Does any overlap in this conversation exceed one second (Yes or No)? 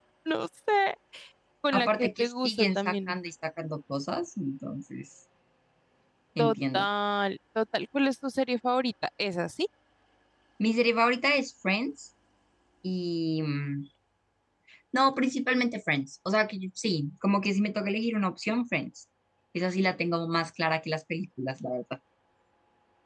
Yes